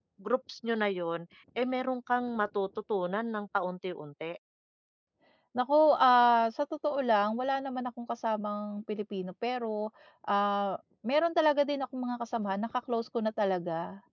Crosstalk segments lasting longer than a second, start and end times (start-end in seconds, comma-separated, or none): none